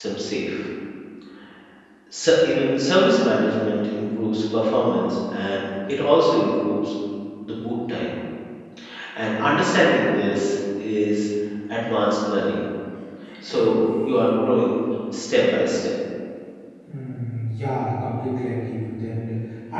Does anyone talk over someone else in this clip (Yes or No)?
No